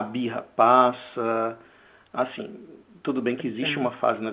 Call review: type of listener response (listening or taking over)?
listening